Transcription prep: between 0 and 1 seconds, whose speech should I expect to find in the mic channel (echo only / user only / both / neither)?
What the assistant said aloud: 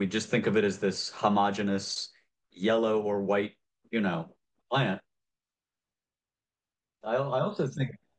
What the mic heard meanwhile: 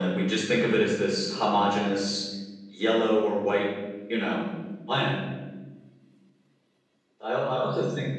echo only